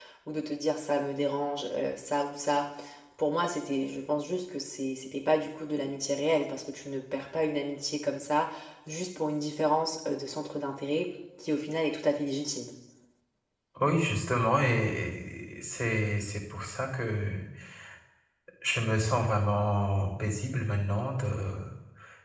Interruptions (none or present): none